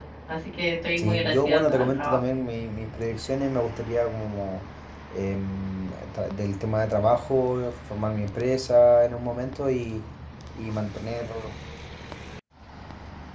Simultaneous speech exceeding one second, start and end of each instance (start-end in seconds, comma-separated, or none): 1.0-2.2